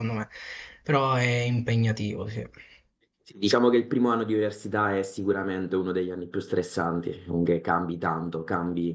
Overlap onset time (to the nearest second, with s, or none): none